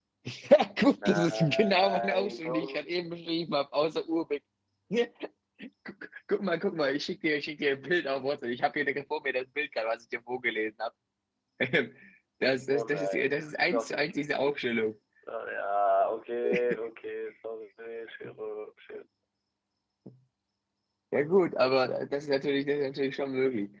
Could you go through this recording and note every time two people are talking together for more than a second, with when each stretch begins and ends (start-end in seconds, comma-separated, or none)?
0.9-2.8, 12.7-14.1